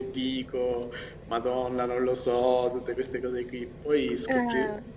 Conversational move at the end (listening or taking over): listening